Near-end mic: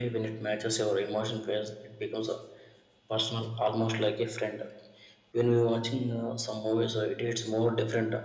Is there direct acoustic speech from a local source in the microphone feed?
No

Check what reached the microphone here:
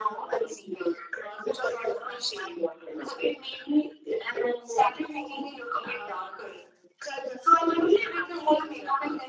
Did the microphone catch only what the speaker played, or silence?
Yes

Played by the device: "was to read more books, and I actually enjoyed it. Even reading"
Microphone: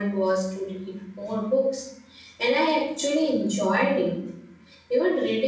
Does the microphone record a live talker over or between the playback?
No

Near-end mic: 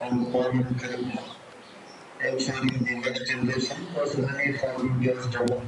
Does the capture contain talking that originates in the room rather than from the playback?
No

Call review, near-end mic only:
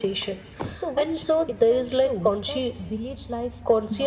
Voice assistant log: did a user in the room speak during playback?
No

